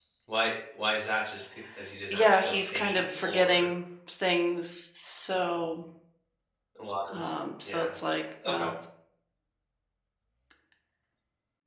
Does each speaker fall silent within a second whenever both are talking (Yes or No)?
No